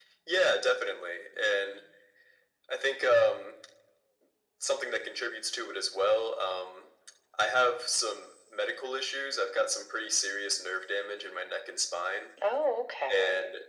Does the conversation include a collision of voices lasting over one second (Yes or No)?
No